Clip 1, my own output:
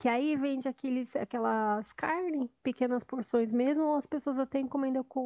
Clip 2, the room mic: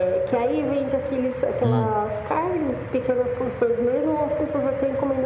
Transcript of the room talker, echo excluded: Hum.

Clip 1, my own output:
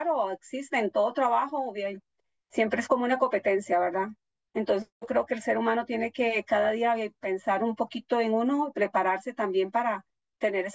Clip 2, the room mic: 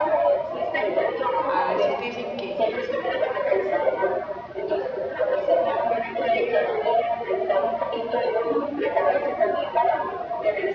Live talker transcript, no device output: a veces dicen que,

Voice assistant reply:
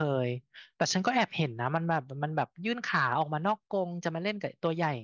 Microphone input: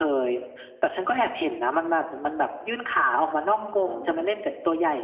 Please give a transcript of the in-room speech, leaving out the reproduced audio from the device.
อืมเขา

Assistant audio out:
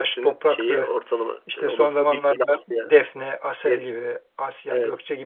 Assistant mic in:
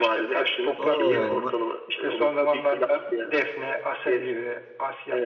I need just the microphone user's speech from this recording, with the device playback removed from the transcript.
Oo ma-

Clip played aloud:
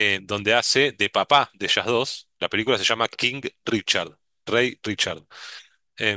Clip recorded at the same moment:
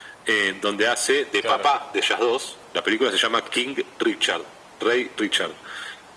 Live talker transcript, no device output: Claro,

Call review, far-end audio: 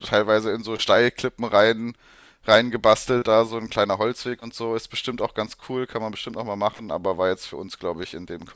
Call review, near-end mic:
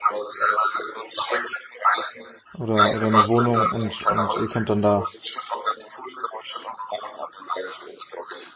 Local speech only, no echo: oder, oder eine Wohnung und, und ihr könnt dann da.

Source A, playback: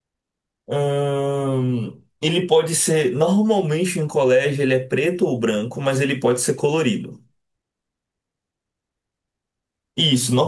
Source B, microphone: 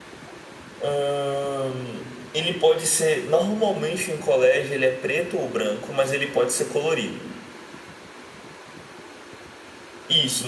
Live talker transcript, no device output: none

